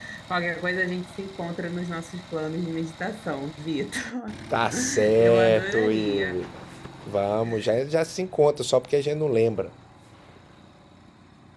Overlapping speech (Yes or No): Yes